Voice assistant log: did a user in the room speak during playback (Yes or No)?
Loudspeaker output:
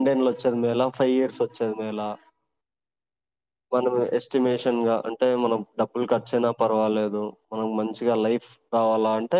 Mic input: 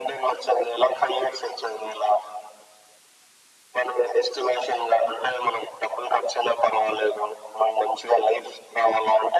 No